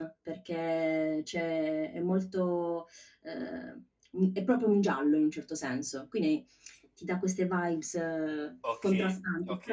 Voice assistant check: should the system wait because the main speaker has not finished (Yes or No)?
No